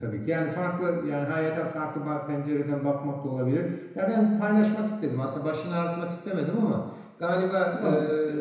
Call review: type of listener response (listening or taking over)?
listening